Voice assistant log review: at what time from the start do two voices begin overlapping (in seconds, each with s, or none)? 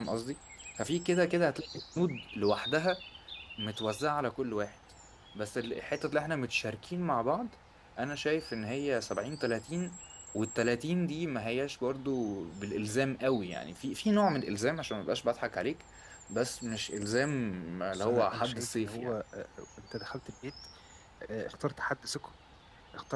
17.9 s